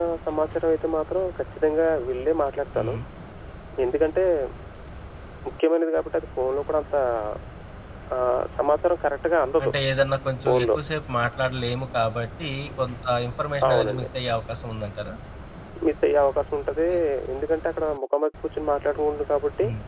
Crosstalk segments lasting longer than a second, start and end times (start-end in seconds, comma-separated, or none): none